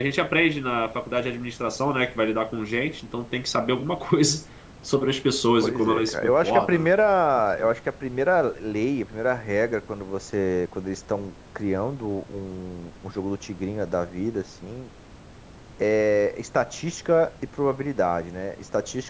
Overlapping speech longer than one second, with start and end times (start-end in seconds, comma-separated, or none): 5.6-6.9